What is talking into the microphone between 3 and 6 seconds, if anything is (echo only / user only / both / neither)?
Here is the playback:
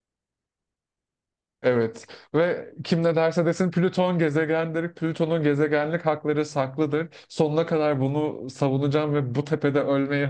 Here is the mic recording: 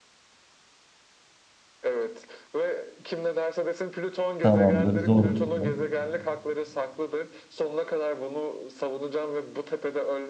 both